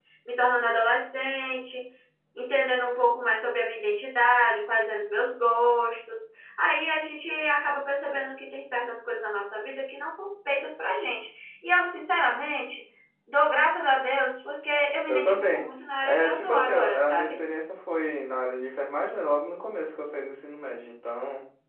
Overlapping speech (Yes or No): Yes